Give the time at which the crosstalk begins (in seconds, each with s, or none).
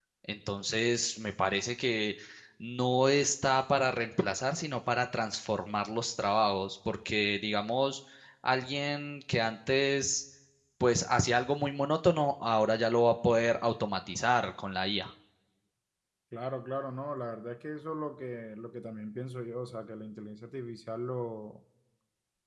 none